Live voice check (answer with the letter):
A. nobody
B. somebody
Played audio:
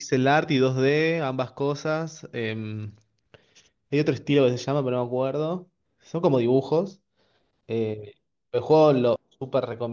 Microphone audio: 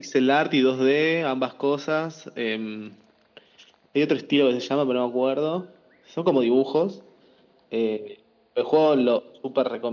A